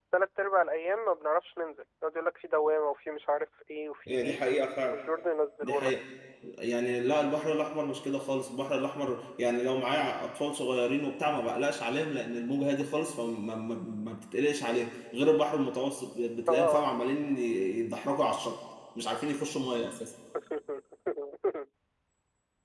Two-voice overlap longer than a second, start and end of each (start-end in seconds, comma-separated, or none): none